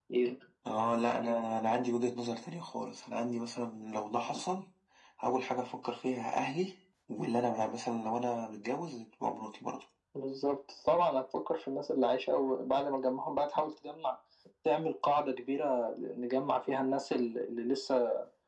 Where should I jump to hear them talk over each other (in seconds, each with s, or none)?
none